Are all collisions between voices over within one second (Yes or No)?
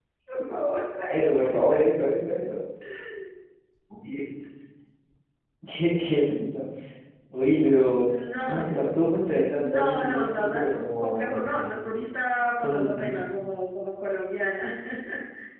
No